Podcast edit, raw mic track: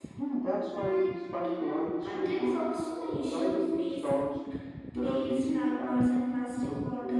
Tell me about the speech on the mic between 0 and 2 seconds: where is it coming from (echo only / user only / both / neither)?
both